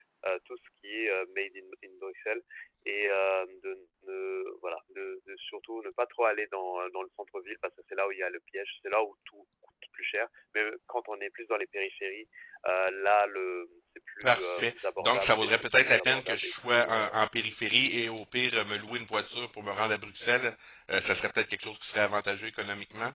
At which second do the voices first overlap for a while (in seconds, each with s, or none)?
14.2 s